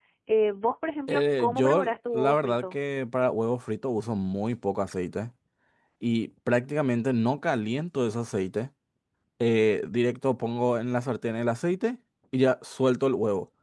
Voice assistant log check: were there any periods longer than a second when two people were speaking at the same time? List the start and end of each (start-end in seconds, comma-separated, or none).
1.1-2.8